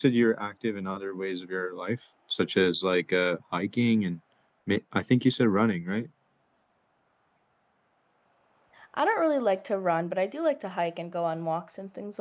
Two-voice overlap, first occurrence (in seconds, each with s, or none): none